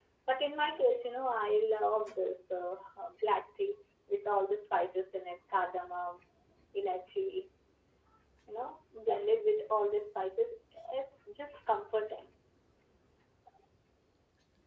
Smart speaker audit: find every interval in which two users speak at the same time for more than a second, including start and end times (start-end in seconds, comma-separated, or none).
none